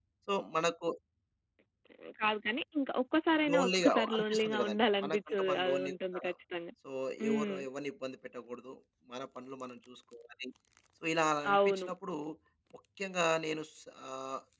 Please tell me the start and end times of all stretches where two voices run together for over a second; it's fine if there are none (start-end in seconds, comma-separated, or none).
3.5-6.2